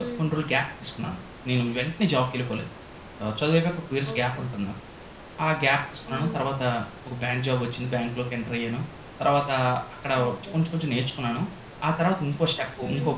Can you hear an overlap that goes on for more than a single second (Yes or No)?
No